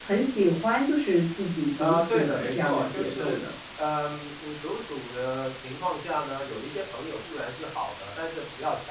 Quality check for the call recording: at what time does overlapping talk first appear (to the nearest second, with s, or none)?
2 s